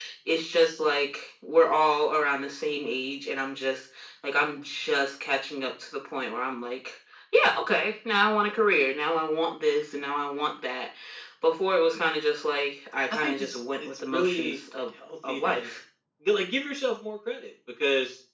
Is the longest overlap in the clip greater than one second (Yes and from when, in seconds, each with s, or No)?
Yes, from 13.1 s